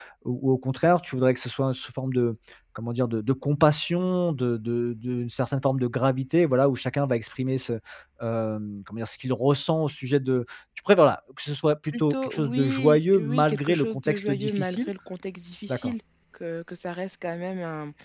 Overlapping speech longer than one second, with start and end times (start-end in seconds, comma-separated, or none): 11.8-14.9